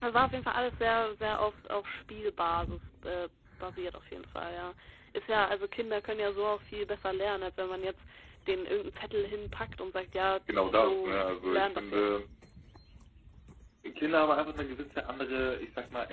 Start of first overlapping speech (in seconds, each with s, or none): 10.5 s